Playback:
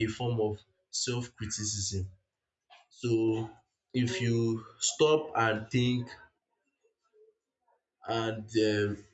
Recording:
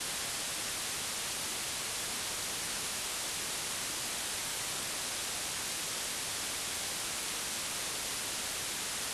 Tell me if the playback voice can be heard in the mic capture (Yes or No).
No